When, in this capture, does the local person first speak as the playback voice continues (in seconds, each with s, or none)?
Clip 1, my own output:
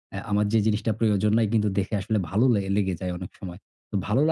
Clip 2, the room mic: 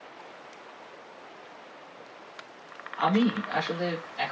3.0 s